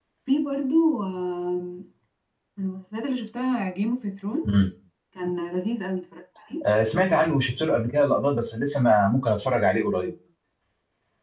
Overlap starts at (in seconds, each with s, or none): none